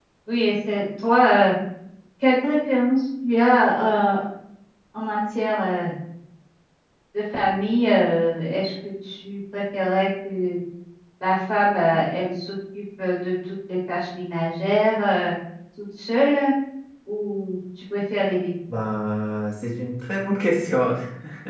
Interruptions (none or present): none